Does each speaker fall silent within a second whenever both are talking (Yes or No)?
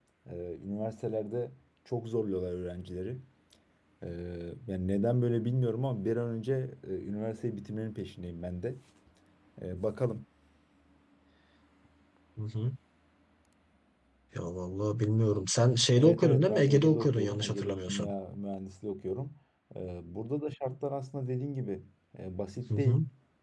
No